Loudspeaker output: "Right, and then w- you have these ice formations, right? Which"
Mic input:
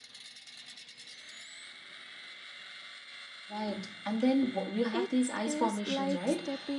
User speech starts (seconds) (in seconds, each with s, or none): 4.9 s